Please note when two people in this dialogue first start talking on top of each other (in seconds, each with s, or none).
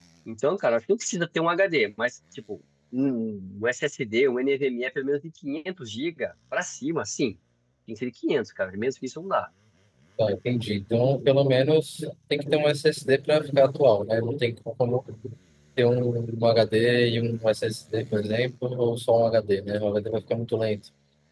none